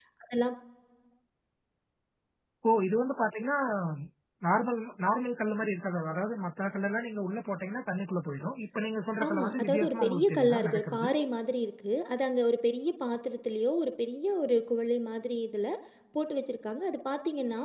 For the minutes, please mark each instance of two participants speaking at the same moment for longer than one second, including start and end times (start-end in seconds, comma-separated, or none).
9.3-11.1